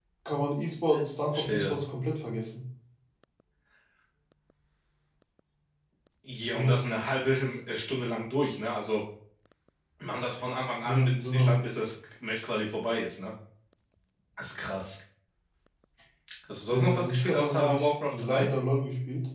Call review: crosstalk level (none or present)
present